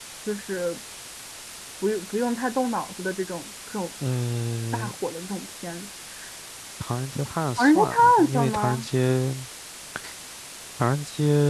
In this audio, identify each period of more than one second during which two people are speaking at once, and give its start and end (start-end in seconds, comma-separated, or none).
7.6-8.8